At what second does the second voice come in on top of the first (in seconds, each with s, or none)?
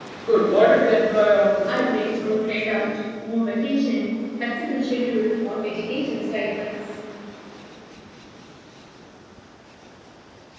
1.7 s